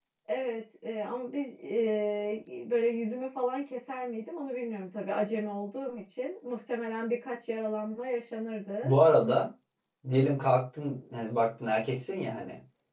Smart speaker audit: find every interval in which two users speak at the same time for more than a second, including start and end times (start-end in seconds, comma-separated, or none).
none